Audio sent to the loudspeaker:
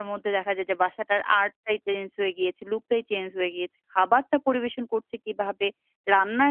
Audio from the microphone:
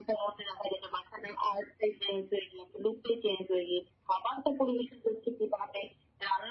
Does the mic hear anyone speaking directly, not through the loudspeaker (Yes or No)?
No